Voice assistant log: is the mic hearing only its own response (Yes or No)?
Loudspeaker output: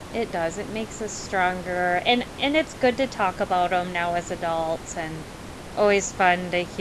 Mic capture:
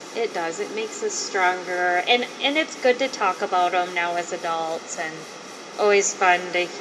Yes